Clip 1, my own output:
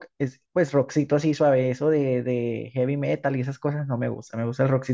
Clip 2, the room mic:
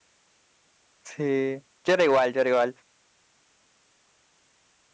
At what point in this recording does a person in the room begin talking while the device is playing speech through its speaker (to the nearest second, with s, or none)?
1 s